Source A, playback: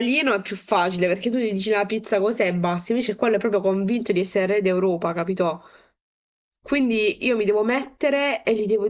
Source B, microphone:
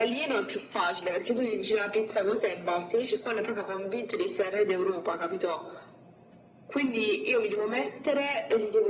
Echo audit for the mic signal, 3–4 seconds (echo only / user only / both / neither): echo only